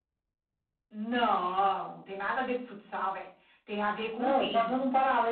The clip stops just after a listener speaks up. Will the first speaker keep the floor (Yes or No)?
No